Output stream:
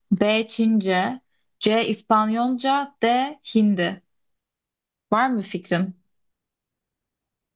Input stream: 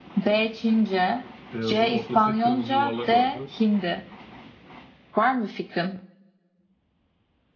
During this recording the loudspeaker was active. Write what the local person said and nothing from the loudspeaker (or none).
Beyazın ortasında kırmızı yuvarlak vardı.